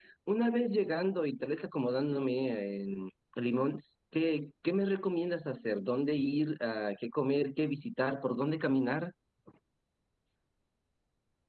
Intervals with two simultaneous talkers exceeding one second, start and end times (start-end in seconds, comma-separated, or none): none